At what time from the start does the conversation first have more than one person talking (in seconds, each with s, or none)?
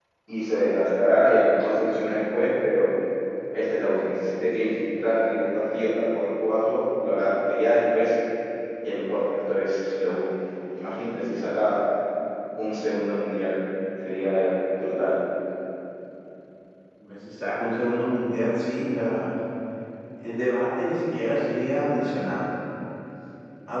none